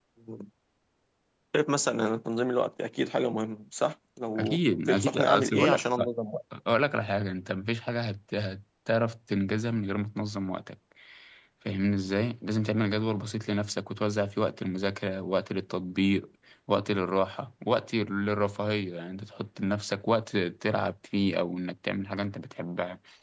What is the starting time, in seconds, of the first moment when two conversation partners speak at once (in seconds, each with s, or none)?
4.4 s